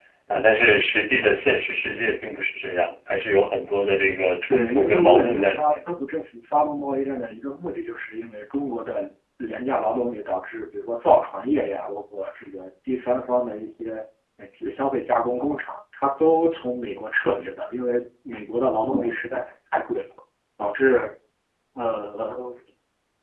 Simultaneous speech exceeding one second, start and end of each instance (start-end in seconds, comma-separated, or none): 4.5-5.8